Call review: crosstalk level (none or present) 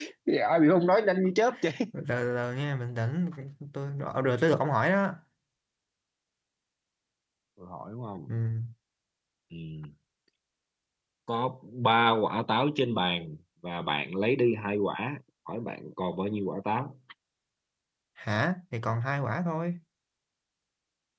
none